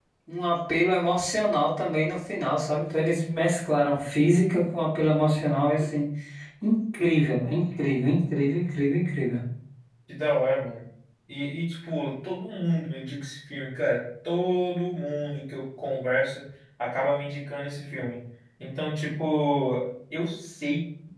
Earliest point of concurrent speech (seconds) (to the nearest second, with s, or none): none